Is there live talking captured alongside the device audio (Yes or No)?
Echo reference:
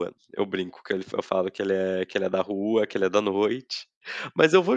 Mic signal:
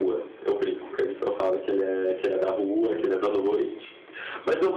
No